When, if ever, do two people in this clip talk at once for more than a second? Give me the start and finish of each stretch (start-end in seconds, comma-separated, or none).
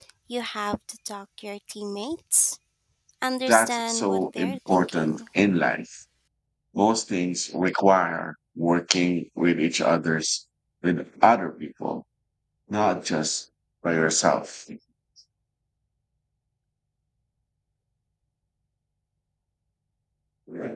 3.5-5.2